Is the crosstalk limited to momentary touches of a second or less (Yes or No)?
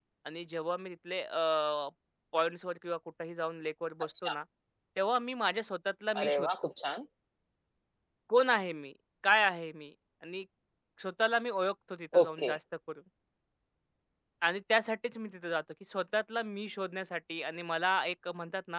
Yes